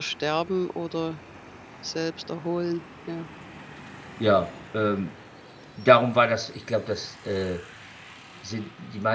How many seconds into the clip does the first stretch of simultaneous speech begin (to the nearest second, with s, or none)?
none